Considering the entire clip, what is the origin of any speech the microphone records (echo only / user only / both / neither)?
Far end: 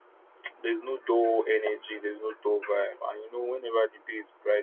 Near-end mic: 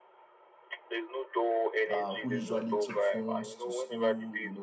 both